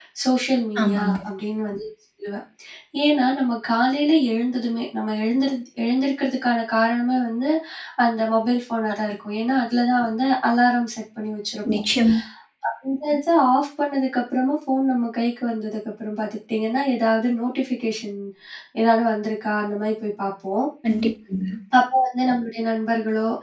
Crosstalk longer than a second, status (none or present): none